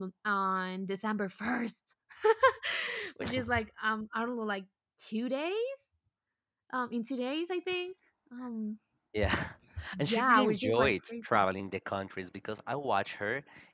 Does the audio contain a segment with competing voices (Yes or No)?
Yes